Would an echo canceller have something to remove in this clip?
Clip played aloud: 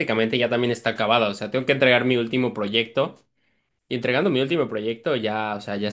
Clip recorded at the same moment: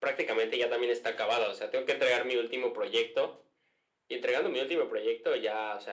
Yes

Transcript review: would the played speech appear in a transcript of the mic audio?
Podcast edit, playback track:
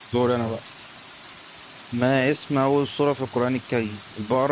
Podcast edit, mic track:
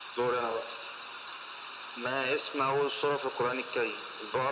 Yes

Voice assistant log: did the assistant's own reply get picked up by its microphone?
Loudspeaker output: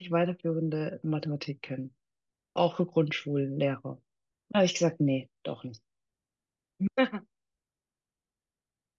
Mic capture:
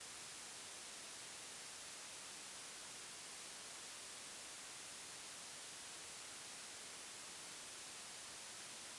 No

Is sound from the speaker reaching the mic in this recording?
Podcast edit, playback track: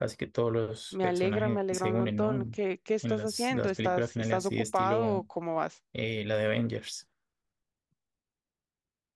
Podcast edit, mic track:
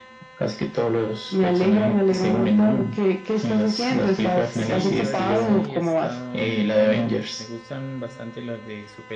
Yes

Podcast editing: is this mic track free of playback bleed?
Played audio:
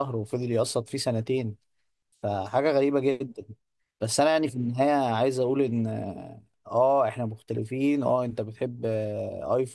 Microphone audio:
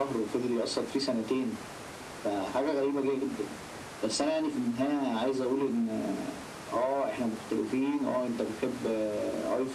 No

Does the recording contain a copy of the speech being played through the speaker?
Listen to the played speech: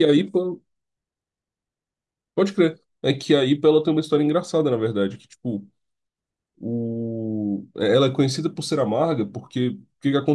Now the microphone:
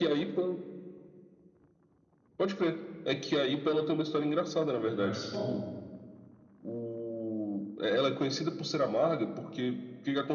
Yes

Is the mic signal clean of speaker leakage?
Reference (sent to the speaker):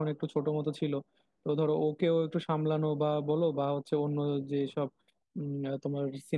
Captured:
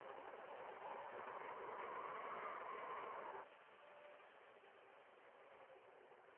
Yes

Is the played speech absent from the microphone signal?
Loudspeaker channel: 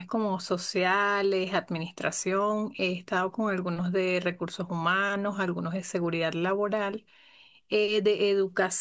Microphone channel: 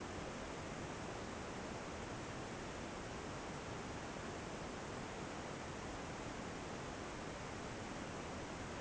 Yes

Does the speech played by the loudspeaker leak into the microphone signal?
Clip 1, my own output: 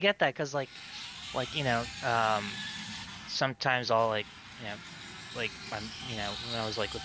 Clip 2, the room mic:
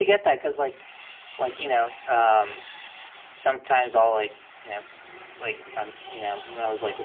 Yes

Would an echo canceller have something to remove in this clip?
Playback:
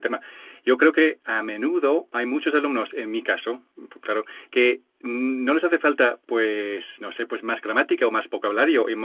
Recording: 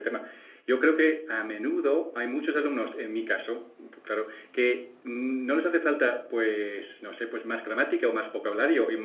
Yes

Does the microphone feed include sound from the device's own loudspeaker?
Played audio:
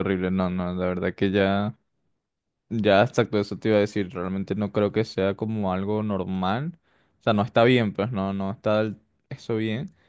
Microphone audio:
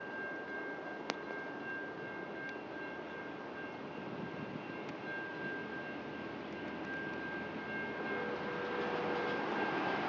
No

